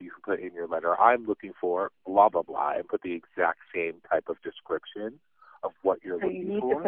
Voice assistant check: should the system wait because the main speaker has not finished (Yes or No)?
No